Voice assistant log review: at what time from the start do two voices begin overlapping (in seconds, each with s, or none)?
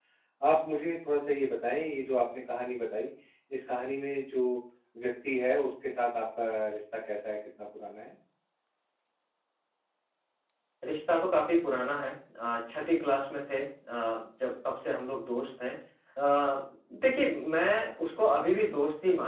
none